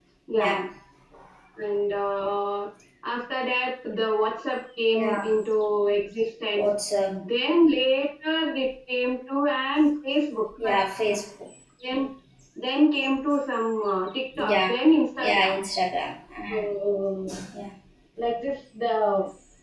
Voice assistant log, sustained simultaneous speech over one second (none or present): none